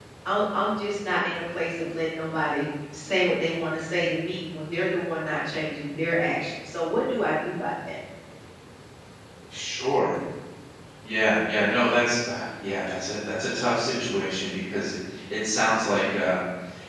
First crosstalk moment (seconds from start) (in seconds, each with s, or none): none